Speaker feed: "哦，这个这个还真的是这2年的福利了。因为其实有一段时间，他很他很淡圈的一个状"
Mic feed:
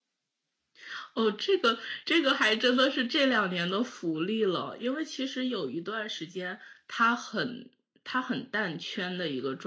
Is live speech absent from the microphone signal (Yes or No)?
Yes